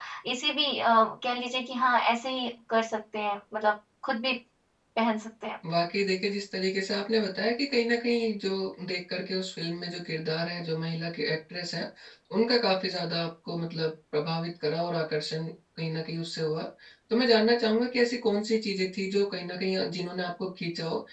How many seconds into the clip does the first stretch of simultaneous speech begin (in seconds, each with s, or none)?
none